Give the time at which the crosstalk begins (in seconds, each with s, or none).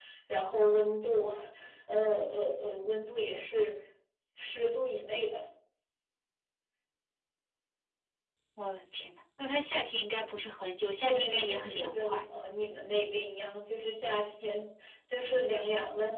11.0 s